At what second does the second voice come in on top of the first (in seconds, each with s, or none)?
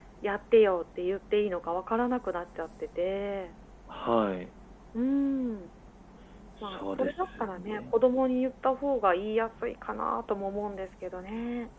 6.6 s